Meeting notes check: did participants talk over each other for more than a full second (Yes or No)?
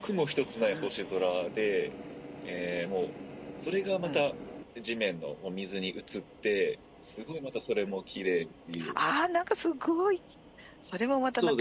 No